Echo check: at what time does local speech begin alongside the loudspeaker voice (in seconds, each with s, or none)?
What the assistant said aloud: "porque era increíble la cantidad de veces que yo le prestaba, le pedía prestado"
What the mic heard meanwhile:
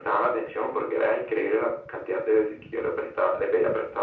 none